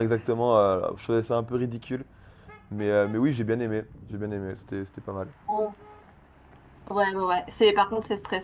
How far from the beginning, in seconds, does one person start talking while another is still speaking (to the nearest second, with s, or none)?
none